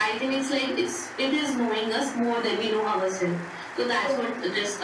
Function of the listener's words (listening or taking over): listening